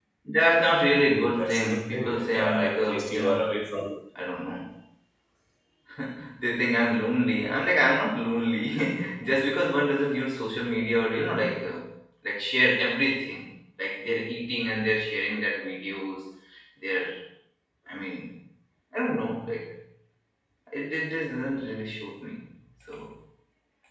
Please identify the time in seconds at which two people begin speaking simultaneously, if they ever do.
1.0 s

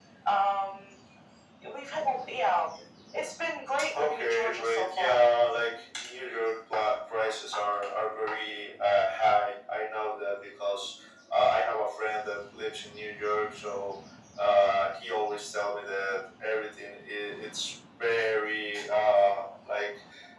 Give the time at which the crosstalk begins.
4.0 s

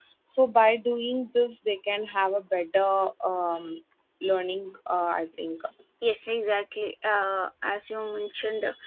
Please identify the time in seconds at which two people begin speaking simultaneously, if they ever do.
none

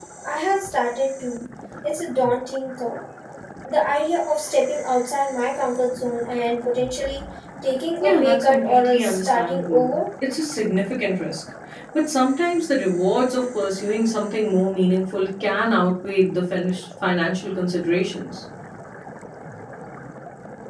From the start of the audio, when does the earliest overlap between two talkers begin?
8.0 s

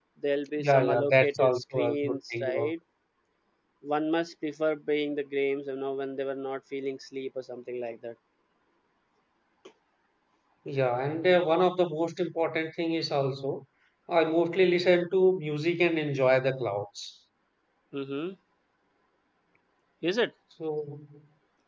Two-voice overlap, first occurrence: 0.6 s

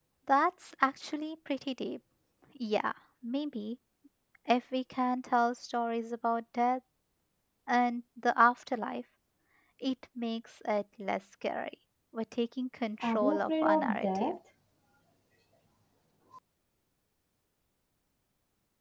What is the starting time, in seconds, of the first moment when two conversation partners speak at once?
13.0 s

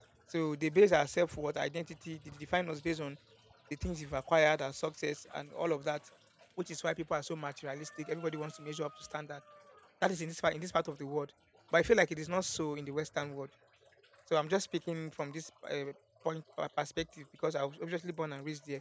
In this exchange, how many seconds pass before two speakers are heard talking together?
none

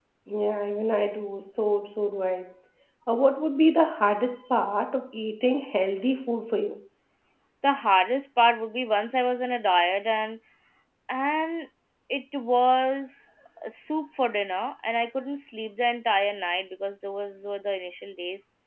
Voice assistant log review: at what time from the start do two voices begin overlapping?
none

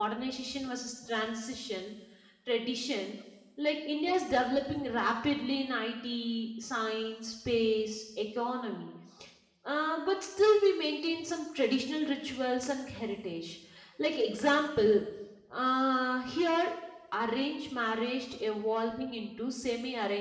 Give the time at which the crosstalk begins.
none

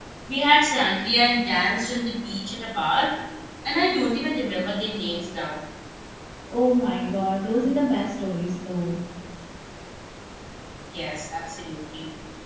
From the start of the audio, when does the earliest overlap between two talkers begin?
none

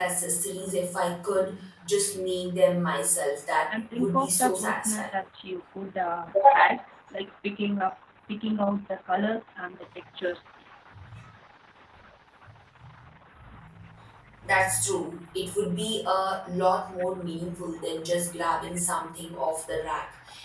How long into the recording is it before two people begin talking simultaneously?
3.7 s

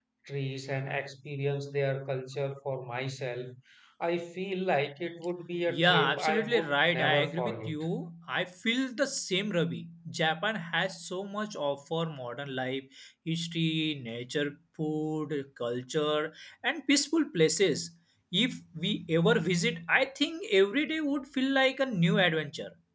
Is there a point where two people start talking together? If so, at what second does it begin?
5.7 s

